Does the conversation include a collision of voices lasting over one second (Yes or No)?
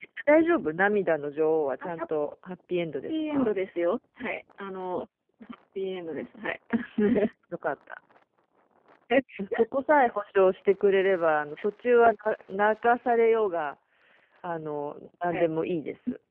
No